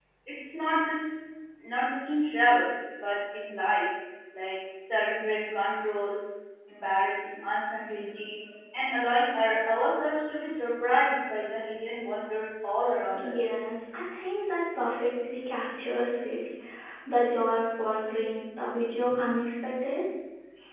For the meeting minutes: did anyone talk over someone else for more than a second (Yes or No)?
No